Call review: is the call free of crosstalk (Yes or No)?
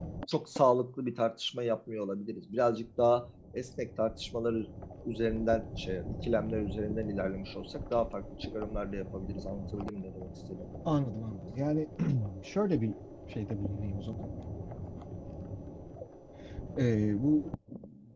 Yes